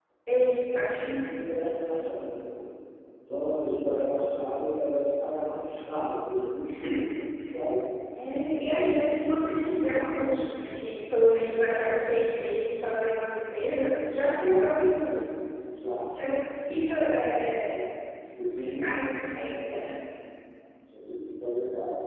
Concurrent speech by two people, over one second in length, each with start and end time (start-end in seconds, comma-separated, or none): 18.6-19.9